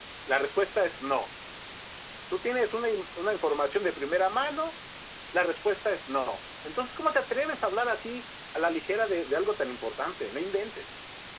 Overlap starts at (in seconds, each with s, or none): none